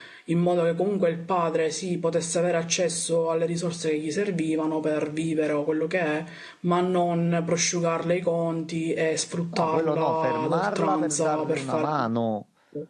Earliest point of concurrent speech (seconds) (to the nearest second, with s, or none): 10 s